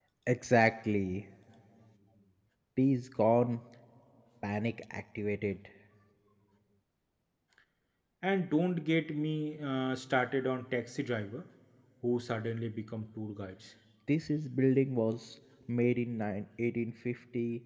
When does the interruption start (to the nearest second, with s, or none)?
none